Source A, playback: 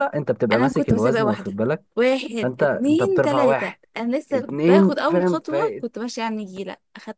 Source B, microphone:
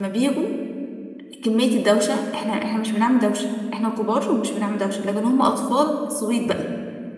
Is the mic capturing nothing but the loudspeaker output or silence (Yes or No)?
No